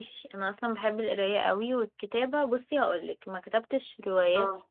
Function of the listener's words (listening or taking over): listening